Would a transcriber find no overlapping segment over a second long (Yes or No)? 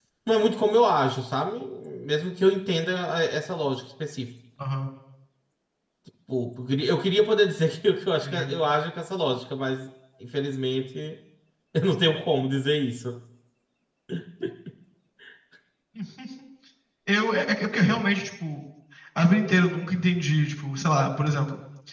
Yes